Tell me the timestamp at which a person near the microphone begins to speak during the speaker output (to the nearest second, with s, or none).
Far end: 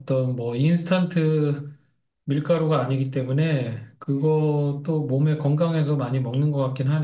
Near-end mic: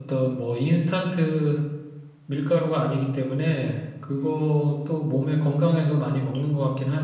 none